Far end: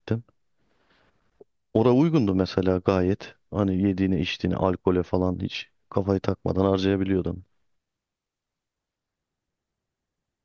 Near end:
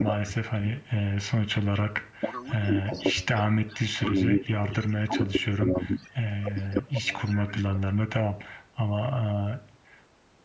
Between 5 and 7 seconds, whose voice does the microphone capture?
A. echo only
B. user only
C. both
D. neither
C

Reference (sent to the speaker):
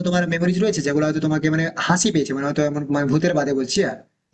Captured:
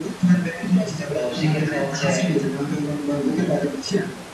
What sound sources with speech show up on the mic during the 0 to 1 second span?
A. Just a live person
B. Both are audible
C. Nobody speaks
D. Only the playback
D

